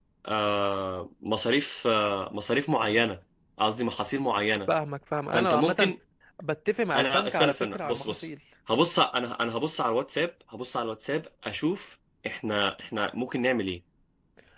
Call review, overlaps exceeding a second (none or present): present